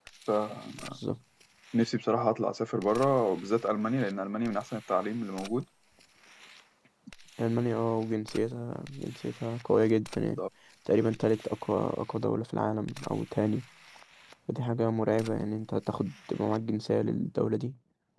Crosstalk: none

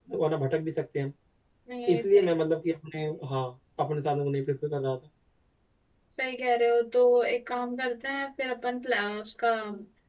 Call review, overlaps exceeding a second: none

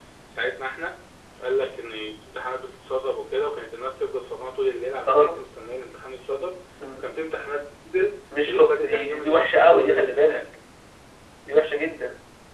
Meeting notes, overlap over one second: present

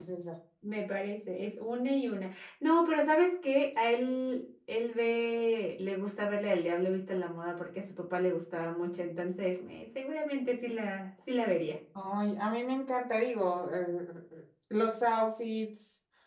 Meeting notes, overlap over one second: none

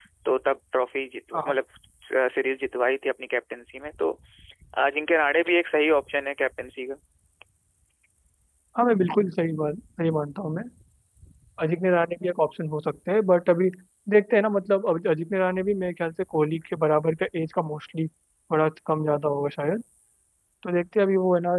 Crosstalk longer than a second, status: none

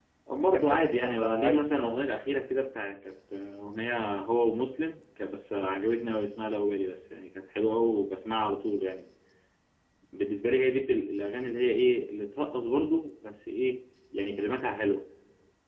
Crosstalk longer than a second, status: present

